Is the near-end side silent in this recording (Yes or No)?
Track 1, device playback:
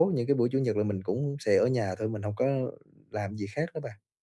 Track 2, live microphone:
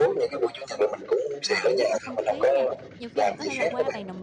No